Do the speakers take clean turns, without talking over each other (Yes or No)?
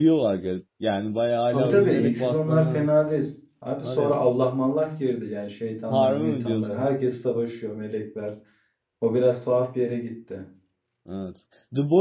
No